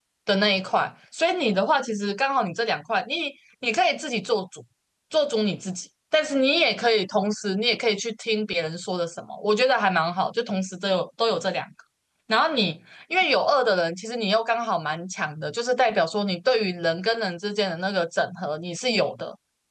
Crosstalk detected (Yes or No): No